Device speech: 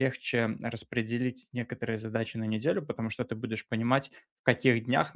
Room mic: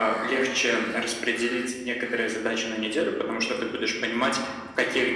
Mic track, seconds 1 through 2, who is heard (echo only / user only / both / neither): echo only